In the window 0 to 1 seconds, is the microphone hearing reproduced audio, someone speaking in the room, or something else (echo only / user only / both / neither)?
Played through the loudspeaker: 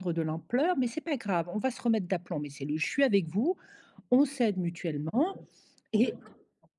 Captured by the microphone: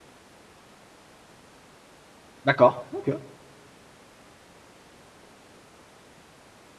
neither